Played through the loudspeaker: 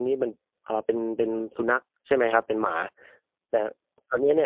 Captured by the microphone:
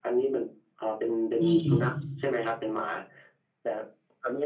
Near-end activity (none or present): present